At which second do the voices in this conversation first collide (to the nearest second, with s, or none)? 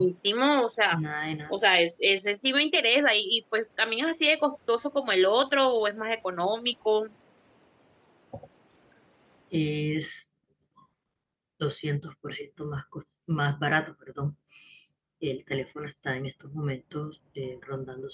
none